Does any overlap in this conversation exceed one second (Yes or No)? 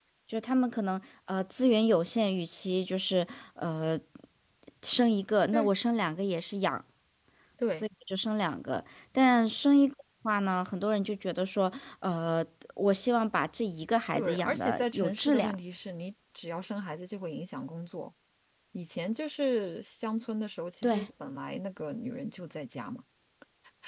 Yes